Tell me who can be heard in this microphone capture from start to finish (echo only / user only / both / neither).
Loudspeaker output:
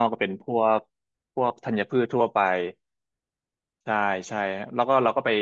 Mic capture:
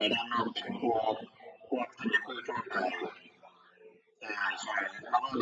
echo only